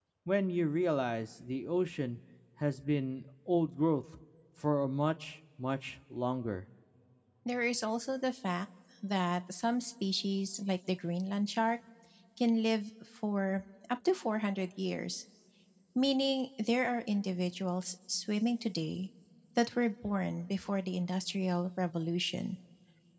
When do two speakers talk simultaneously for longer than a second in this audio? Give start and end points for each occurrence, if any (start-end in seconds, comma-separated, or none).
none